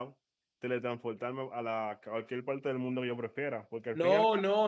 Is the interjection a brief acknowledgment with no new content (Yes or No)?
No